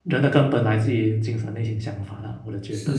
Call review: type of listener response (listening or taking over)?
taking over